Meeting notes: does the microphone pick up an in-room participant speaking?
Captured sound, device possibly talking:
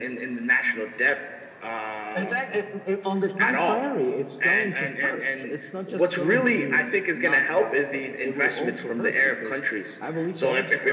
No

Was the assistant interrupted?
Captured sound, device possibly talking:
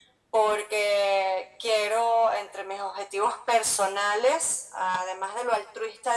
No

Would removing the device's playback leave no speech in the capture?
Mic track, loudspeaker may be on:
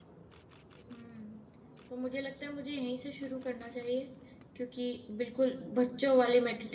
No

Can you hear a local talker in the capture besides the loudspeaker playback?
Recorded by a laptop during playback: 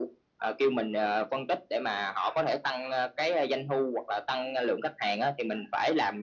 No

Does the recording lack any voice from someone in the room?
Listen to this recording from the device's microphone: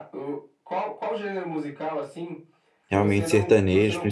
No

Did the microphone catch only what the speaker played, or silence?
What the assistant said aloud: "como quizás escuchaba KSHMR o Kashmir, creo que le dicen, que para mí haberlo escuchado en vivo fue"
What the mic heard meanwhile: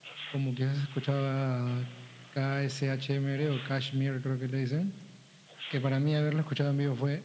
Yes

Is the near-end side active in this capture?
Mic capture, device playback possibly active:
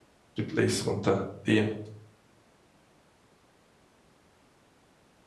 Yes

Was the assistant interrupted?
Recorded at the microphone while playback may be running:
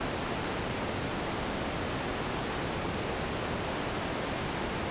No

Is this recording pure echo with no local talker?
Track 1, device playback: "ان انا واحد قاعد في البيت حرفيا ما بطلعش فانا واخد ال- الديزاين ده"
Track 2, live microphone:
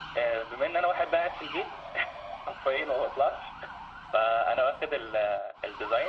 Yes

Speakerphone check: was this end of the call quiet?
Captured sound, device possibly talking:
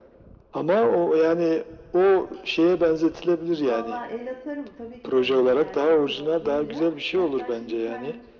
No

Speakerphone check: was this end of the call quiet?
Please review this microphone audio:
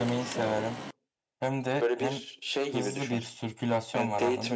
No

